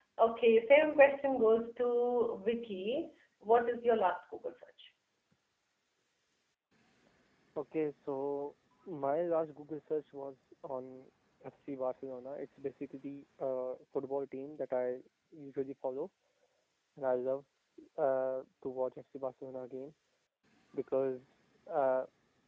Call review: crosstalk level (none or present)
none